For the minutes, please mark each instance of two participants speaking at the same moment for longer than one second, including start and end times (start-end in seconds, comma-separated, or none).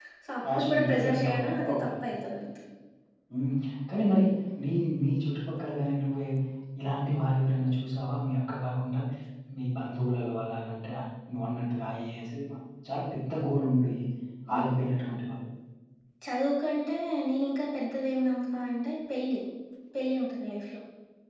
0.6-2.0